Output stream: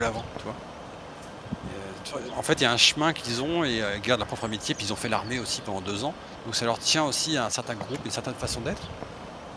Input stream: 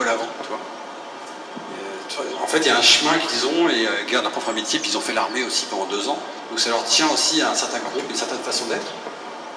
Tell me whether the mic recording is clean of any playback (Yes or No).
No